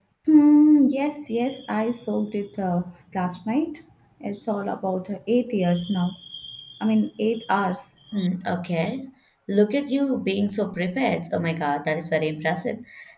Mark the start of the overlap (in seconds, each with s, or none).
none